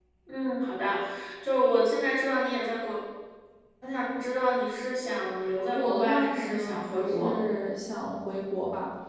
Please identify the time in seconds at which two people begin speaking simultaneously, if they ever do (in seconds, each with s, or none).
5.7 s